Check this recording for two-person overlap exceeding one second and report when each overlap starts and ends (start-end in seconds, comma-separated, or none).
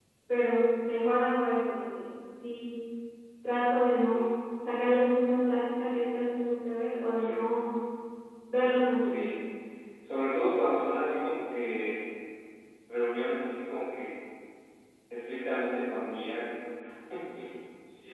none